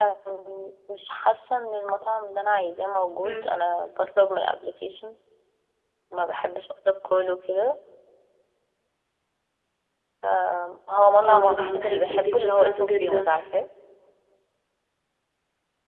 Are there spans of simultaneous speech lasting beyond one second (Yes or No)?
Yes